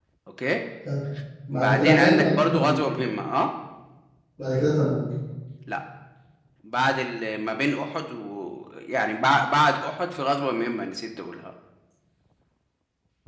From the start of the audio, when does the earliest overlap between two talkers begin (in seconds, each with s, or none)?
1.5 s